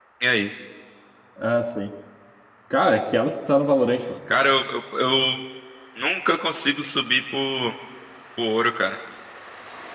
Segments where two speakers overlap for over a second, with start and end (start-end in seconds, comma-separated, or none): none